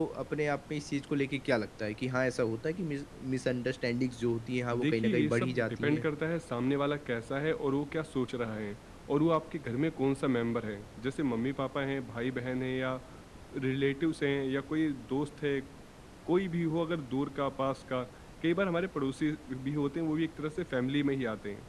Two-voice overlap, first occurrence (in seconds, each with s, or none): 4.7 s